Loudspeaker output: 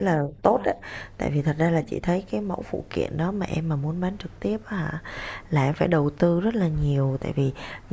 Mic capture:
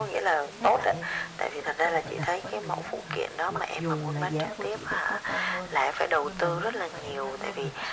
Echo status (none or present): present